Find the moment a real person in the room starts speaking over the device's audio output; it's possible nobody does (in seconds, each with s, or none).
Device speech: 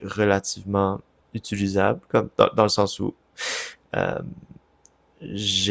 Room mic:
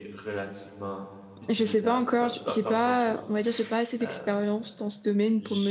1.5 s